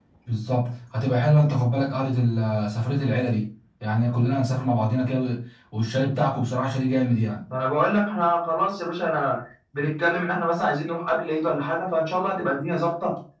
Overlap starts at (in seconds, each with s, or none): none